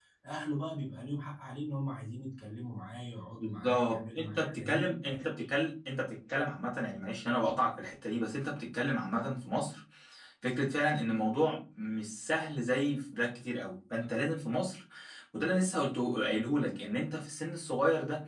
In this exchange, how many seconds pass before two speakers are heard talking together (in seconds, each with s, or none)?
3.4 s